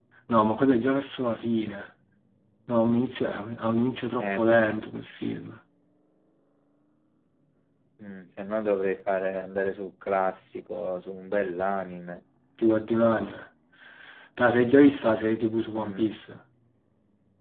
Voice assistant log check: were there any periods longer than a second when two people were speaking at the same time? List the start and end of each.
none

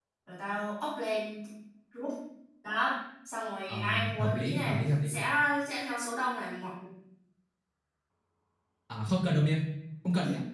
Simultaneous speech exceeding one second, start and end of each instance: 3.7-5.2

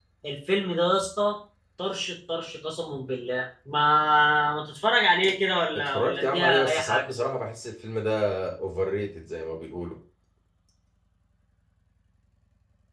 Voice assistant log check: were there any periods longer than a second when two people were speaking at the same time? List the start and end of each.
5.7-7.1

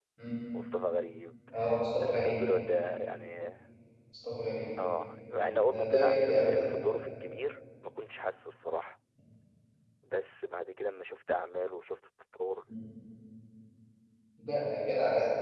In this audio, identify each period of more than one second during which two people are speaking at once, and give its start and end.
5.3-6.6

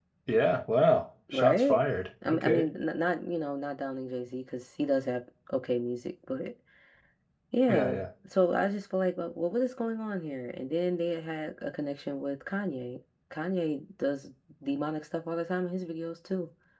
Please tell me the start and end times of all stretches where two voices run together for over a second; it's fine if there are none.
none

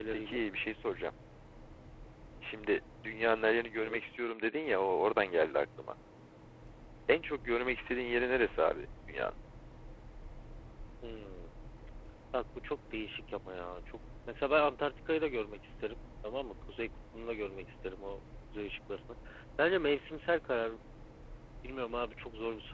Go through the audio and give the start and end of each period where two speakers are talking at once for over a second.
none

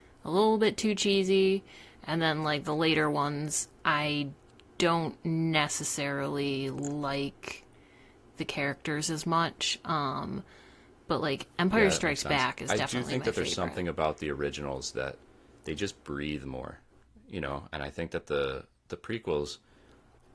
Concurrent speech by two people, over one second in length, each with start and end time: 11.7-13.8

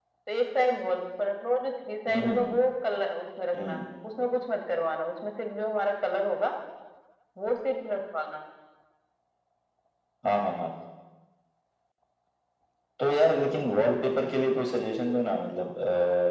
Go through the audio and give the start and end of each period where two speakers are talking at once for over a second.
none

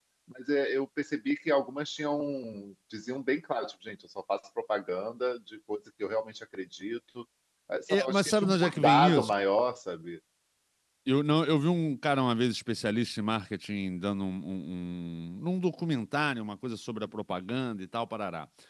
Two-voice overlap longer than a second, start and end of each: 7.9-9.3

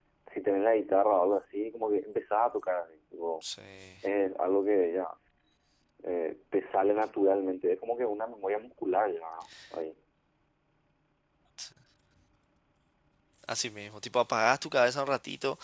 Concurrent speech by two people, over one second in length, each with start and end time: none

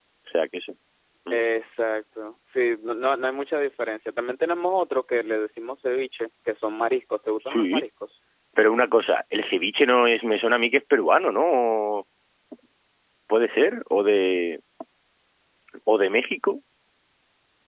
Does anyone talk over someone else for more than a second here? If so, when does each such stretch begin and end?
none

